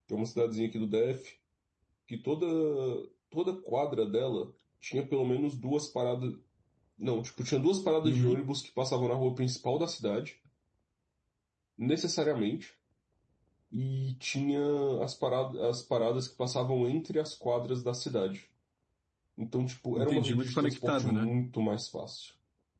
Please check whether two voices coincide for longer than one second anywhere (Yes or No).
Yes